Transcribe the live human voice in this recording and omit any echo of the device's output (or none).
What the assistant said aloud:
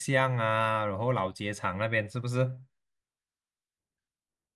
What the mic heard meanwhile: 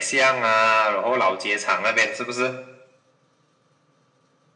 none